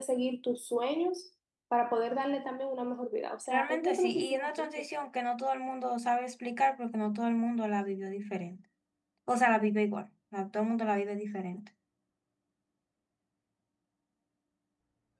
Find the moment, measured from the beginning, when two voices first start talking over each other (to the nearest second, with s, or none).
4 s